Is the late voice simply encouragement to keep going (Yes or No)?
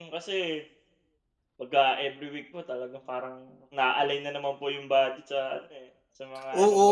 No